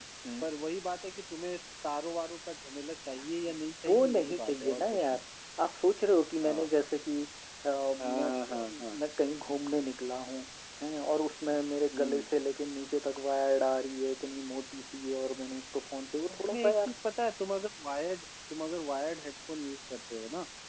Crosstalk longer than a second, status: present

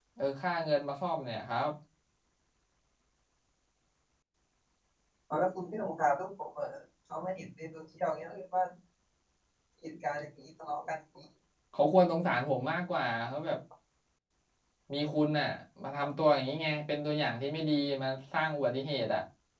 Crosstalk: none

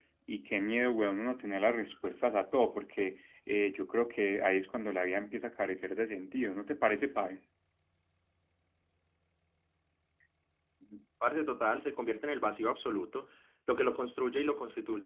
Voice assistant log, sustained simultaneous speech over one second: none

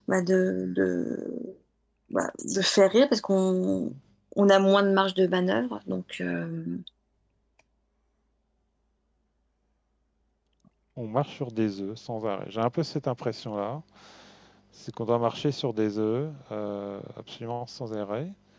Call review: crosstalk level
none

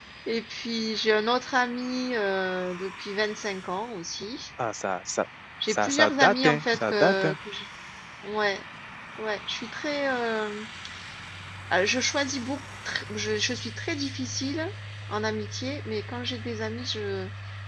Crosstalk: present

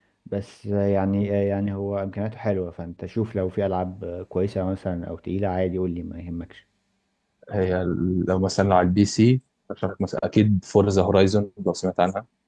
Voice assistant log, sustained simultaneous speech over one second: none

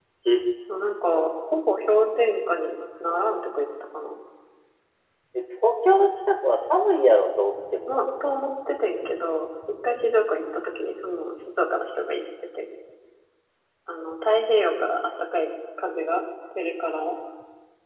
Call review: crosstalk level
none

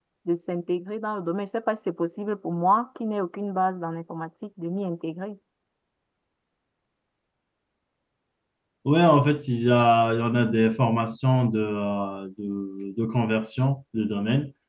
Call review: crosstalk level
none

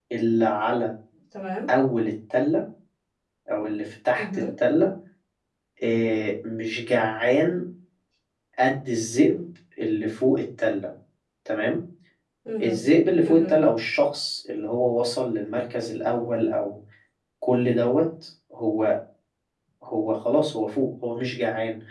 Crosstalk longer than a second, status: none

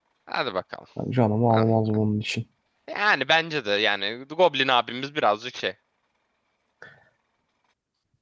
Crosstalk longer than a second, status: none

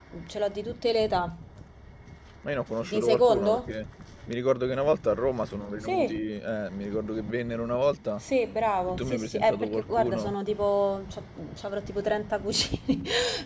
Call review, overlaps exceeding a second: present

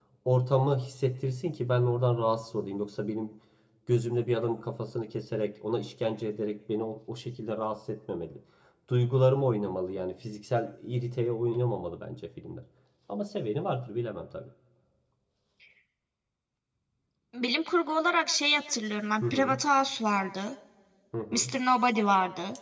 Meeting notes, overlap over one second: none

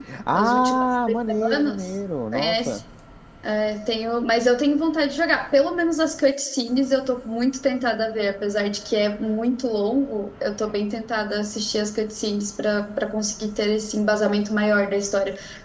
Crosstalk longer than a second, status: present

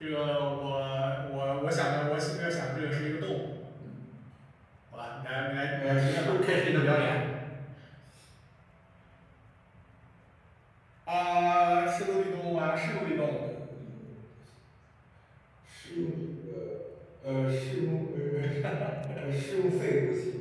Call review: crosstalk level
present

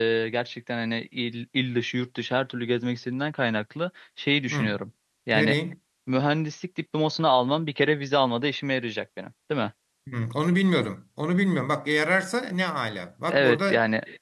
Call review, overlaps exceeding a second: none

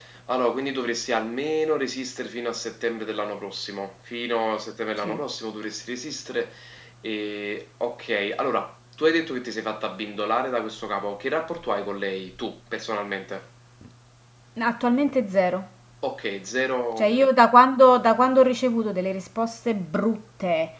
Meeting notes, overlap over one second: none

